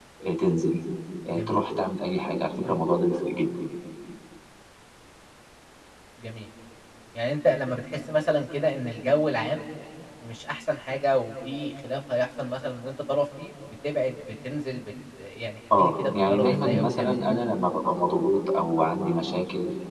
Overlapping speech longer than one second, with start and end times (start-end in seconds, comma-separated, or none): 15.8-17.3